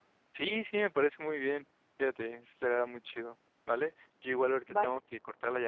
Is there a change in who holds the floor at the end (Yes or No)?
No